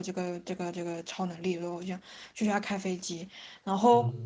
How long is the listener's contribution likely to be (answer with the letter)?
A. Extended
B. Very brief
B